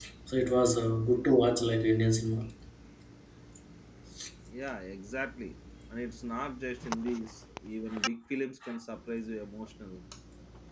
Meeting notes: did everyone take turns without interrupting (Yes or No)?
Yes